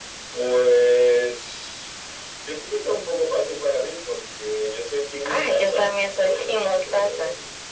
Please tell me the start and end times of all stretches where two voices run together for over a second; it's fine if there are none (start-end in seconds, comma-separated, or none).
5.3-7.1